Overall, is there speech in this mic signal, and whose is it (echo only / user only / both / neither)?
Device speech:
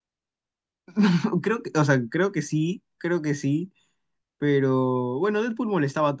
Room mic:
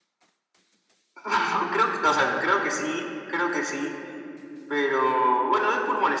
echo only